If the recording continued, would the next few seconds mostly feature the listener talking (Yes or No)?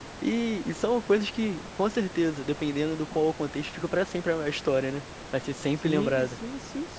Yes